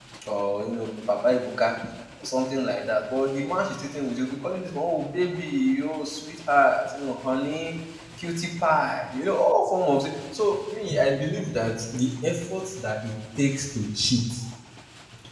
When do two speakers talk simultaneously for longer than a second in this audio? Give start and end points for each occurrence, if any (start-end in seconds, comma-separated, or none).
none